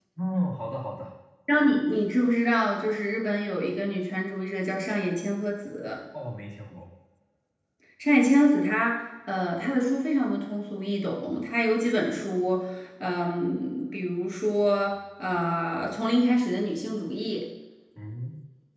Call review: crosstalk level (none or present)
none